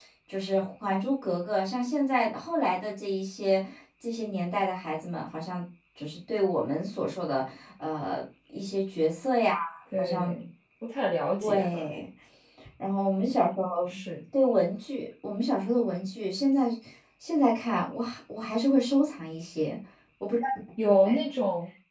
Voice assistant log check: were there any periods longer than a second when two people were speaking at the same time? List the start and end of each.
none

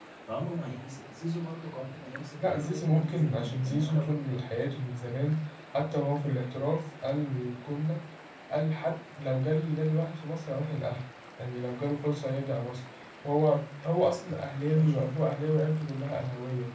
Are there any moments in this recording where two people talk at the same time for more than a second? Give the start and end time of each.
2.4-4.2

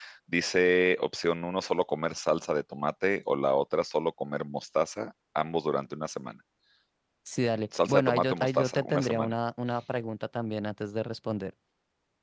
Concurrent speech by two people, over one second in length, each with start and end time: 7.9-9.3

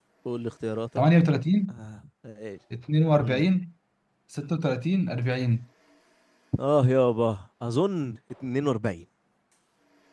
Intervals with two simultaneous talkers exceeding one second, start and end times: none

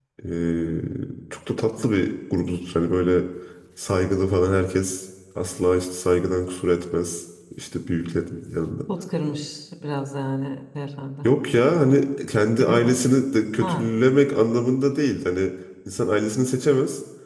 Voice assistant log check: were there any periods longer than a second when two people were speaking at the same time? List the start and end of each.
none

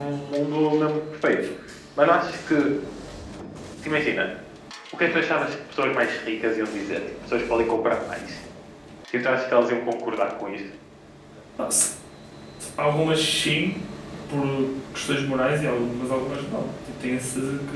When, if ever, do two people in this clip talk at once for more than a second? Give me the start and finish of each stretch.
none

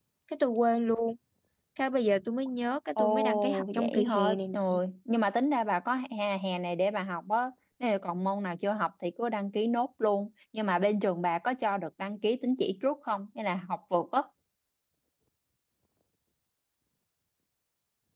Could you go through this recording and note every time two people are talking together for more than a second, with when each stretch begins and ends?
3.0-4.8

